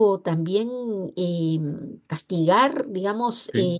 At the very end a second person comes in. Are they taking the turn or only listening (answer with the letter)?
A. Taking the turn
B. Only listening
B